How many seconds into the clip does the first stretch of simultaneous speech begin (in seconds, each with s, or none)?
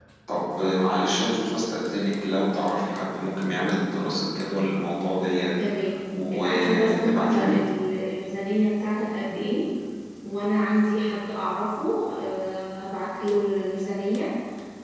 6.3 s